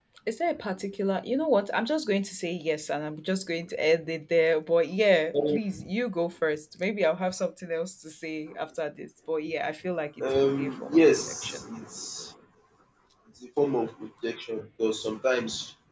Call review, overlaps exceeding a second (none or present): present